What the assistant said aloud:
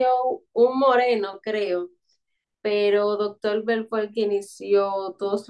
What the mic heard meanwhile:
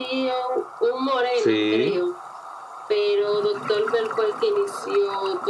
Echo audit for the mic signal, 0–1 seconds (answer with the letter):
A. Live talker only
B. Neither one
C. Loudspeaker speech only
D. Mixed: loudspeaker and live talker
C